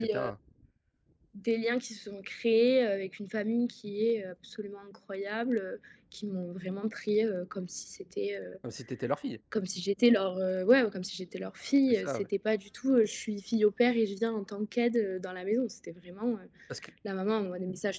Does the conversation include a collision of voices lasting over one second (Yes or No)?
No